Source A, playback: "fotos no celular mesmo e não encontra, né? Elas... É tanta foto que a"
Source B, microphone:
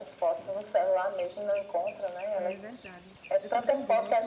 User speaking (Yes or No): Yes